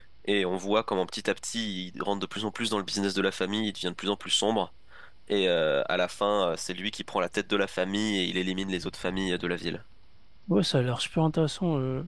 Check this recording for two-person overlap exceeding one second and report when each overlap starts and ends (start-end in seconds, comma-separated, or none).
none